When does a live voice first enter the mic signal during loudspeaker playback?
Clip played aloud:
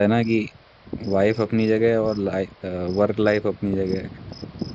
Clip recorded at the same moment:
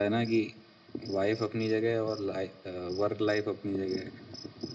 none

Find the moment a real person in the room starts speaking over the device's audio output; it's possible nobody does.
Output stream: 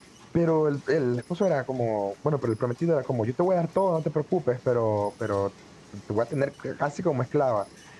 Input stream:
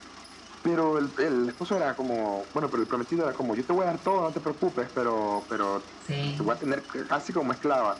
6 s

